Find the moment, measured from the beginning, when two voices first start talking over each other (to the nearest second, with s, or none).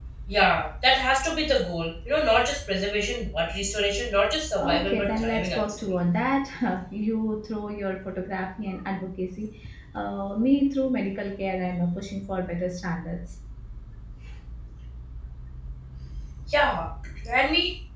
5 s